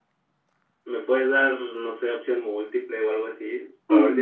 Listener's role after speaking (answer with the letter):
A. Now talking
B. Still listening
A